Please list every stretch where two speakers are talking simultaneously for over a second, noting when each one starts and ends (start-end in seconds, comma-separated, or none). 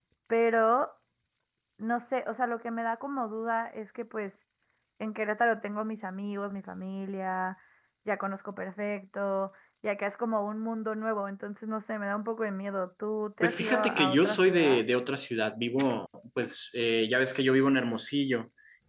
13.4-14.8